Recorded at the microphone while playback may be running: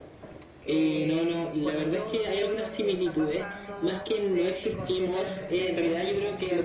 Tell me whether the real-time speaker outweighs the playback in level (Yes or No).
No